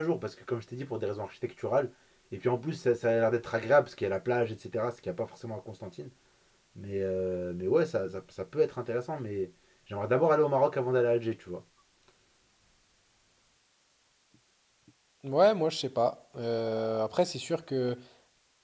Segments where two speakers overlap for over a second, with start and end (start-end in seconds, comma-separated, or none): none